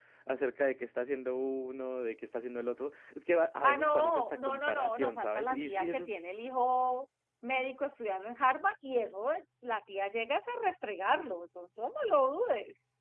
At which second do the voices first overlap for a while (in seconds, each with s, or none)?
3.6 s